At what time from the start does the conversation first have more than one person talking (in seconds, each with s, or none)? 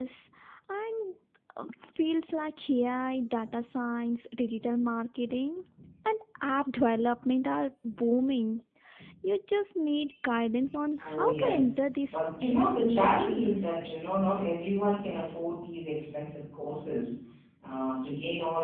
11.0 s